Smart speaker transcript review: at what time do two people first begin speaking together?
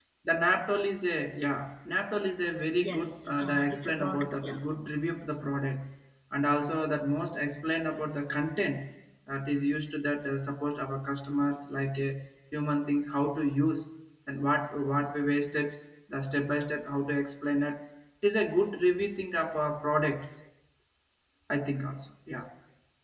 2.8 s

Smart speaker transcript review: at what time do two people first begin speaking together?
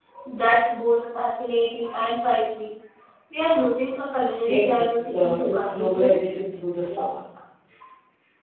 4.5 s

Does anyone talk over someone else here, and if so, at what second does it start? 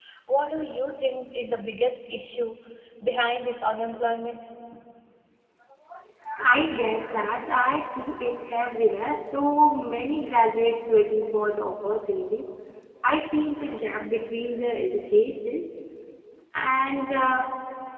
none

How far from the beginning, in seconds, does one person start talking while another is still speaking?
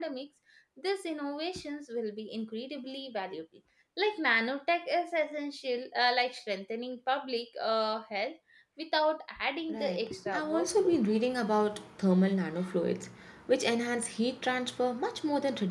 9.7 s

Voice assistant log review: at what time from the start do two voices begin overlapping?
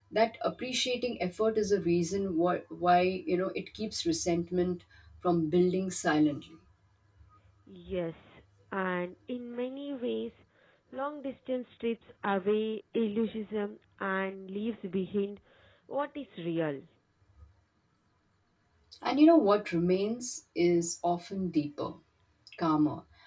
none

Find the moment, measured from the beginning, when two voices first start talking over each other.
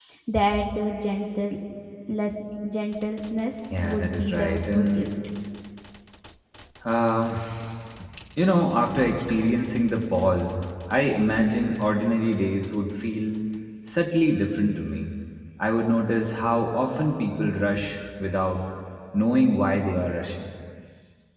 3.7 s

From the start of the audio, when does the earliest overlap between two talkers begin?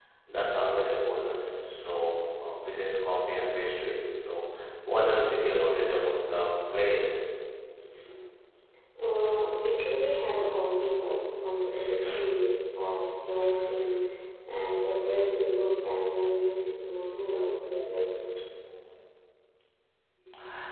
none

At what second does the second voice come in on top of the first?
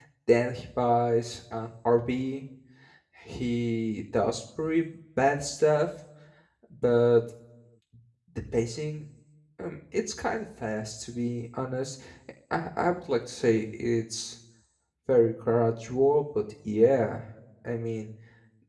none

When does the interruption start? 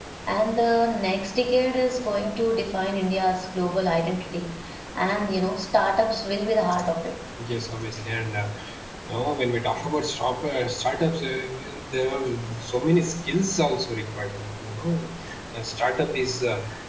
none

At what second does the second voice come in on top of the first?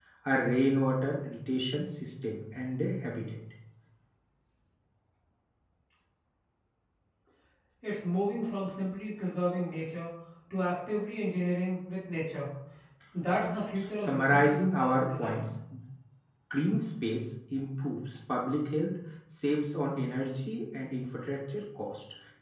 13.8 s

